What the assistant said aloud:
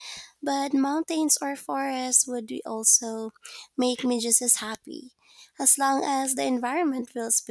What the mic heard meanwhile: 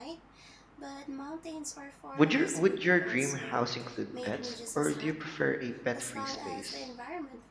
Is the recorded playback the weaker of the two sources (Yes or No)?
Yes